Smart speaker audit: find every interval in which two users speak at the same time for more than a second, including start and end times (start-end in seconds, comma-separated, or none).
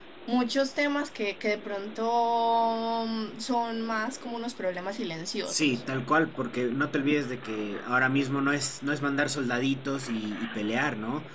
none